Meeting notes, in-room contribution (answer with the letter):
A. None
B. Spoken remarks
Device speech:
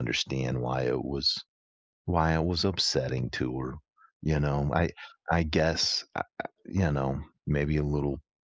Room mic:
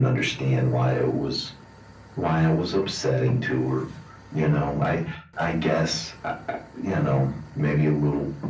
A